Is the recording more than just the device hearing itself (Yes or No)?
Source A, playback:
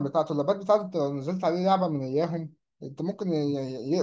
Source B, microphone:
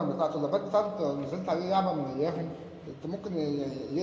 No